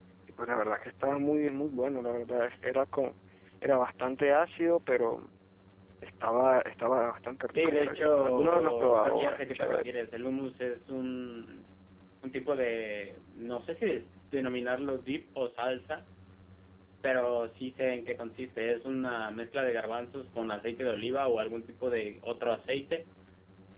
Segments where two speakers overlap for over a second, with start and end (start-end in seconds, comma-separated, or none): 7.5-9.9